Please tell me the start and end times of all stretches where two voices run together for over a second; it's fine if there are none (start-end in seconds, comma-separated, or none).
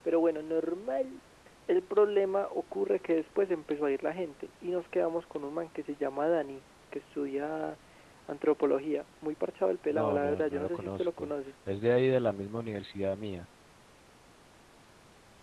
9.9-11.3